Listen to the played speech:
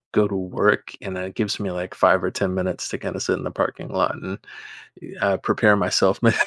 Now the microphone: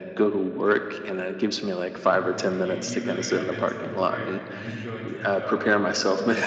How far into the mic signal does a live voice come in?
2.1 s

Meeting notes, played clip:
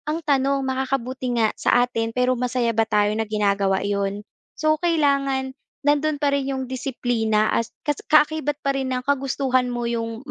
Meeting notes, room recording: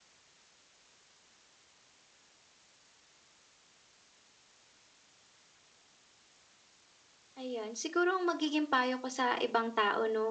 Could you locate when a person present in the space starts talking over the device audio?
7.4 s

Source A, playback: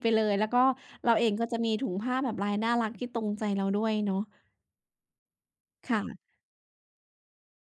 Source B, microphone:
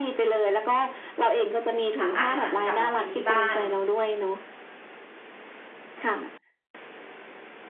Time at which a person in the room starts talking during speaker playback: 2.0 s

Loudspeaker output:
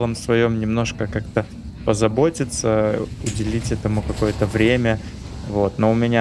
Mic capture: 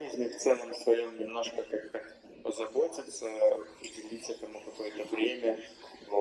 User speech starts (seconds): none

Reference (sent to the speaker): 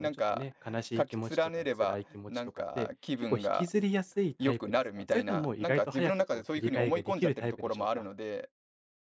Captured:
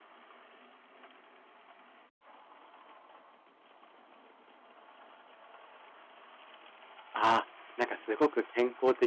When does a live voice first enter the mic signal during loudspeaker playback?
7.1 s

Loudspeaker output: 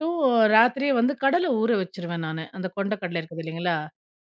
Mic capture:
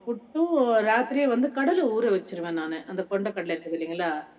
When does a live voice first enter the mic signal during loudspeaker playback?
none

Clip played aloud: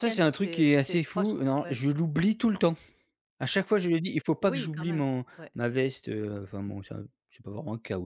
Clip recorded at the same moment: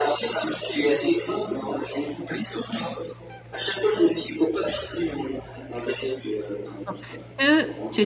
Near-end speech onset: 6.8 s

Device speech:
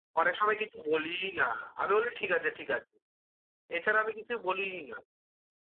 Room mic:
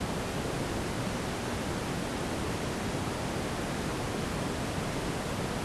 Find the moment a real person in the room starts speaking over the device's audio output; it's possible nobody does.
none

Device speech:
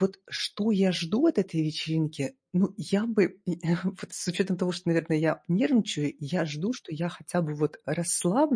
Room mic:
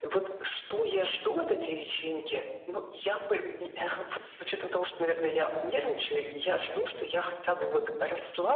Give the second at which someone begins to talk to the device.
none

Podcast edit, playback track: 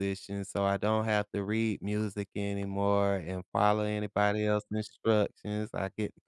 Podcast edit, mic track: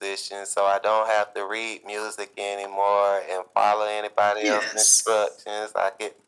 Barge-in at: 4.4 s

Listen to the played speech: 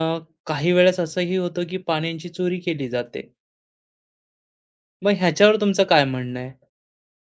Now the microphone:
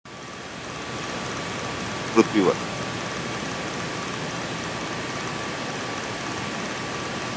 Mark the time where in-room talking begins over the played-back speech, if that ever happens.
2.1 s

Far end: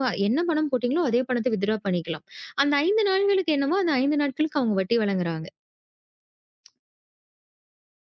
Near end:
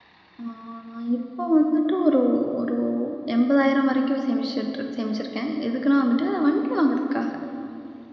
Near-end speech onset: 0.4 s

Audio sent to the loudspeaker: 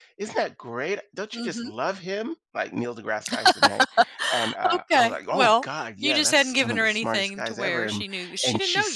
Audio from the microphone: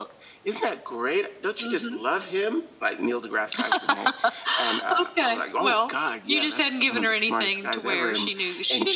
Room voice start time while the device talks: none

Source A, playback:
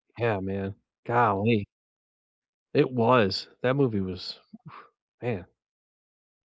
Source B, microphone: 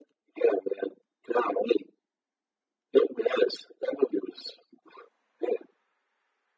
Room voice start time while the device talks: none

